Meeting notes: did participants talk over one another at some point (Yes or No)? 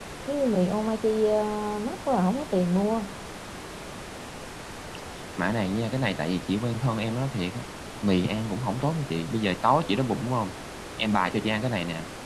No